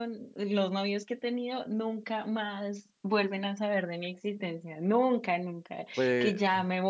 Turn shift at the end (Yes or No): No